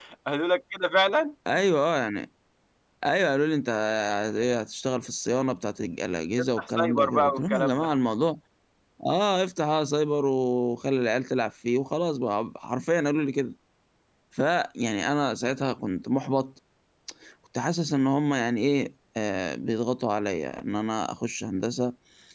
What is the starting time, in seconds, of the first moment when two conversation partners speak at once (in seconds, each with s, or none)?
6.6 s